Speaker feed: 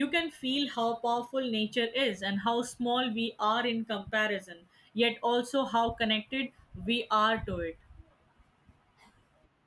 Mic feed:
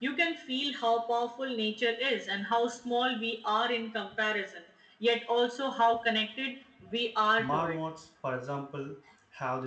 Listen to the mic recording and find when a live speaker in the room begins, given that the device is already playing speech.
7.4 s

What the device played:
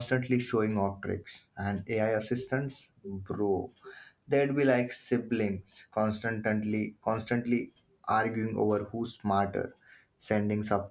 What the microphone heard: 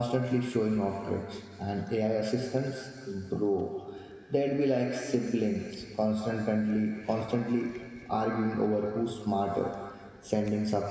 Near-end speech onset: none

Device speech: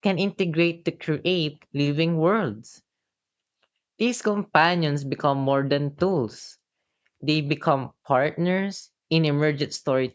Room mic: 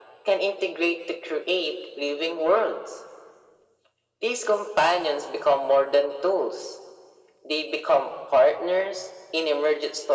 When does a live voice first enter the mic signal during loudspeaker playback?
none

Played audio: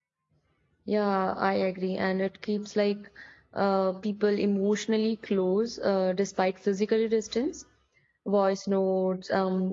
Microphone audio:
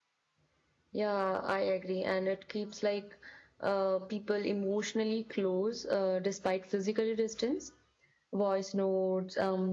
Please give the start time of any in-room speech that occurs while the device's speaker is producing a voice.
none

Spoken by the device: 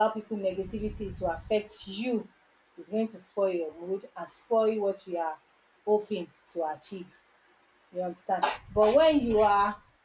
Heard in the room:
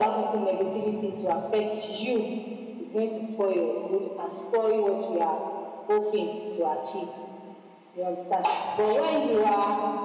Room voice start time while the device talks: none

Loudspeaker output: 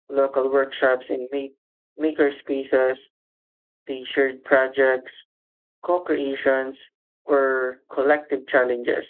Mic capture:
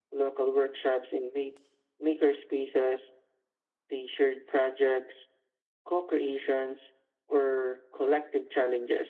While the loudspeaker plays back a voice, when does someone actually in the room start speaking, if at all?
none

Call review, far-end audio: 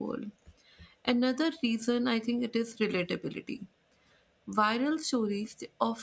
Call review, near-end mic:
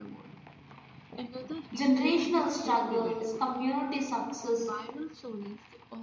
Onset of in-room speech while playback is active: 1.7 s

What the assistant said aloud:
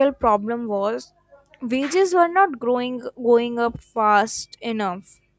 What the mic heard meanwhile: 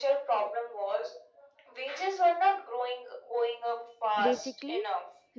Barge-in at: 4.2 s

